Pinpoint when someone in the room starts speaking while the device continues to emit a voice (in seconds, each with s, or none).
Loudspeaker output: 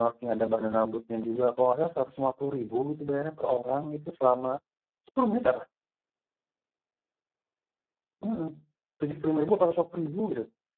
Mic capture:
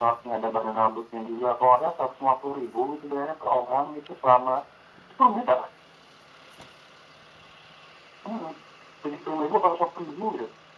none